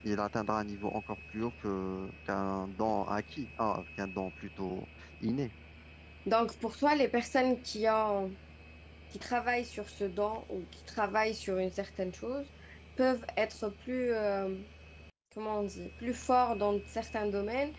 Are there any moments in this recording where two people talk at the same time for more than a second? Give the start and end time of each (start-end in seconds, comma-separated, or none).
none